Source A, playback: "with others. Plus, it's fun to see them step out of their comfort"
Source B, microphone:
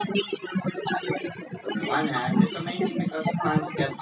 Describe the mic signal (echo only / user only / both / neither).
both